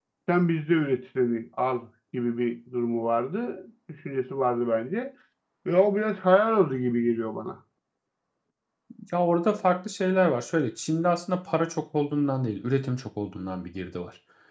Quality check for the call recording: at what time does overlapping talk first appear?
none

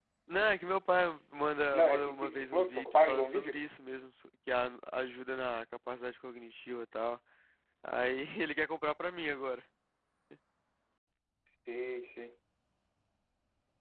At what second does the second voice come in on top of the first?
1.7 s

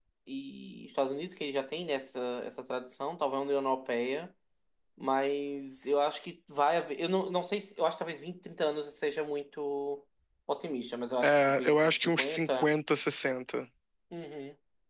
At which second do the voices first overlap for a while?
11.2 s

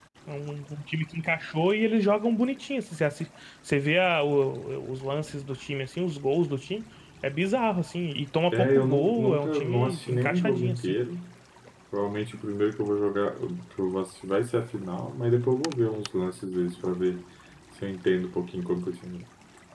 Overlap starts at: 8.5 s

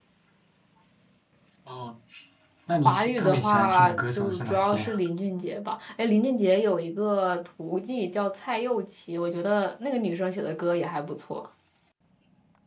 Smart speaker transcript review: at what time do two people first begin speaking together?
2.8 s

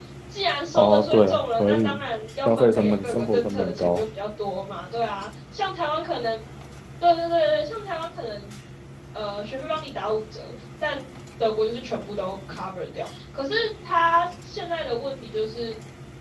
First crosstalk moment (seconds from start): 0.7 s

